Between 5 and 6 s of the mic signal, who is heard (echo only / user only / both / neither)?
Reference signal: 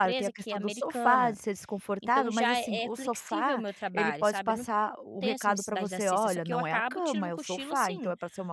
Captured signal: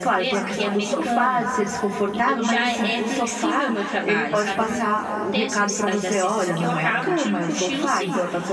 echo only